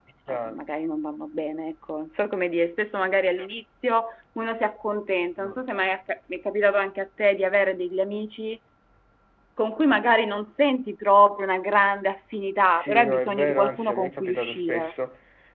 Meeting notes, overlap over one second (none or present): present